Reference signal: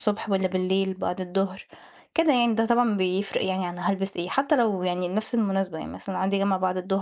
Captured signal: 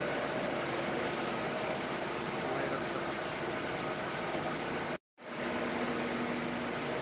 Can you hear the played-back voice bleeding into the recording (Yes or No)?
No